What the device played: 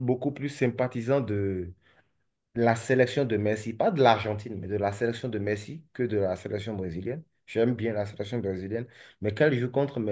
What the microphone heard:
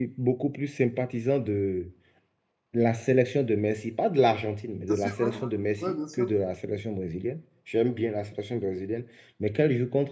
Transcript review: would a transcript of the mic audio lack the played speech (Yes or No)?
No